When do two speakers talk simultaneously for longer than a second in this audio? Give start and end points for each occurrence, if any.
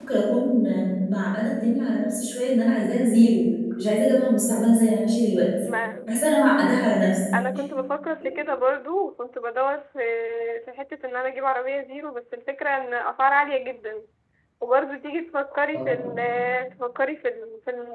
none

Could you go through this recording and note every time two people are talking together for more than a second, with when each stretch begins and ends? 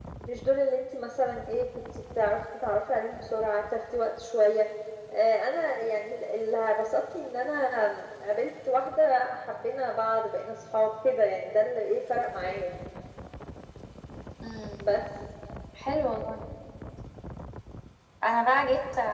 none

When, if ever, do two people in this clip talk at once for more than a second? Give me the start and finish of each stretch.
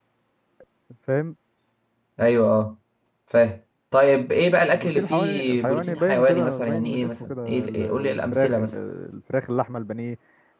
4.7-8.8

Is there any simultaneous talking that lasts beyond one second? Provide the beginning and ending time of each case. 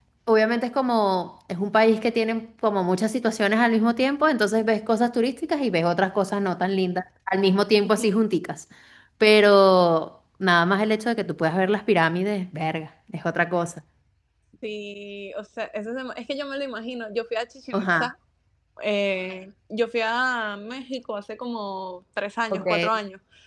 none

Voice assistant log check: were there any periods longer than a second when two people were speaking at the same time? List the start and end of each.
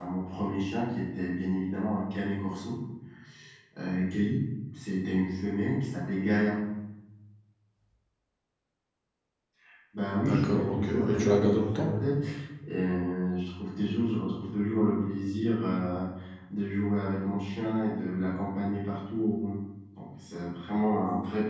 10.2-11.9

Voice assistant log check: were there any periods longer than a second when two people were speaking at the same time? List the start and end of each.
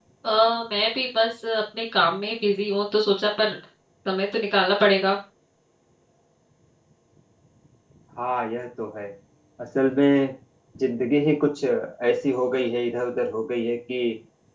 none

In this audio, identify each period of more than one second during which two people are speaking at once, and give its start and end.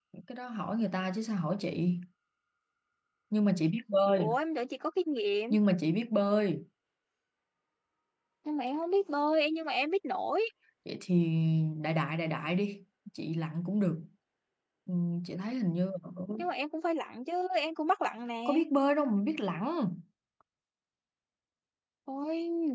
none

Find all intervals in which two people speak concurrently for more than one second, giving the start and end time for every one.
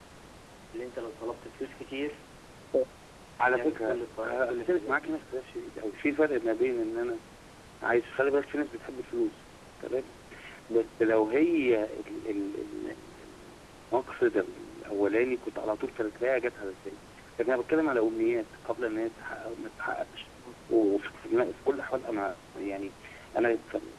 3.4-5.1

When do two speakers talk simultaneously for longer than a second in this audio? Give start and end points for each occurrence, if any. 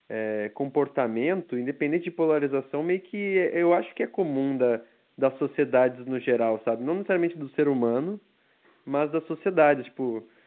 none

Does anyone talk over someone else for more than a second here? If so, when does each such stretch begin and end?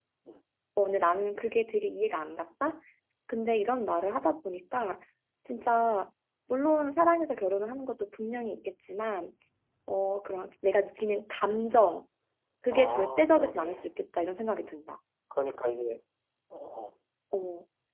12.7-13.9

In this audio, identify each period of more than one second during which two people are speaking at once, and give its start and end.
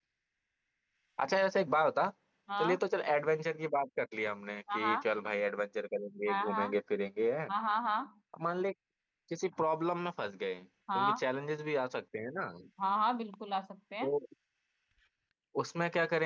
none

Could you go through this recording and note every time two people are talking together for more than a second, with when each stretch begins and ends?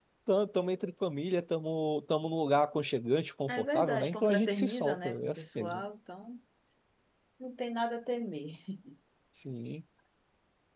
3.5-5.8

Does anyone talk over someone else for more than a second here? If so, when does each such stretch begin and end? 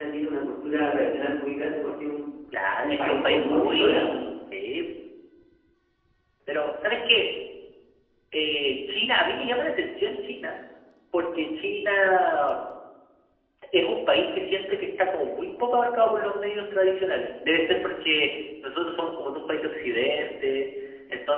2.8-4.1

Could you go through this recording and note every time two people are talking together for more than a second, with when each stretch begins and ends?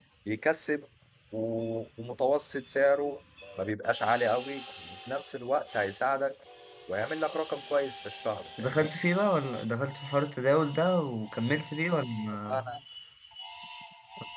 none

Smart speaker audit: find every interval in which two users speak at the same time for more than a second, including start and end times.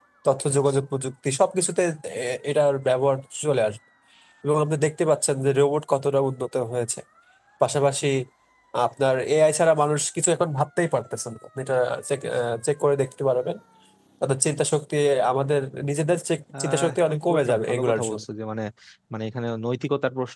16.6-18.2

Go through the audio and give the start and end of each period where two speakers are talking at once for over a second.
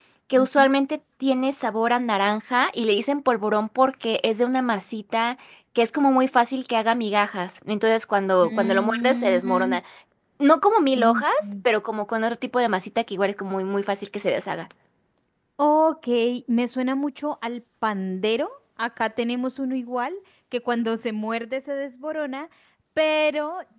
8.4-9.8

